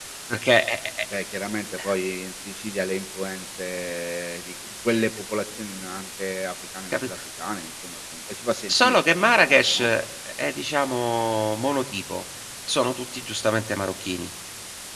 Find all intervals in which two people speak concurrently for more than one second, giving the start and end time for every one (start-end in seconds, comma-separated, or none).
8.7-9.9